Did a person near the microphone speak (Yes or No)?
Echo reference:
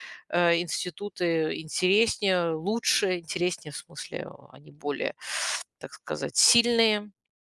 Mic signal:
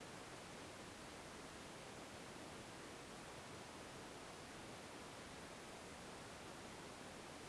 No